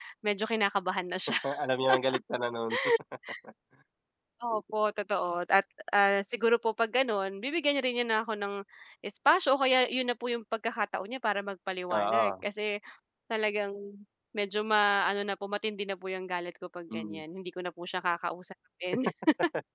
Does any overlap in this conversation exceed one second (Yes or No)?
No